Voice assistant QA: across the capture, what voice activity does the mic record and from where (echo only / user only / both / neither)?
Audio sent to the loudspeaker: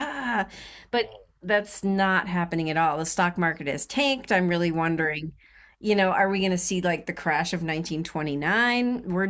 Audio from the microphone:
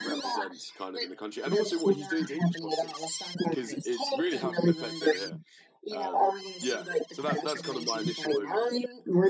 both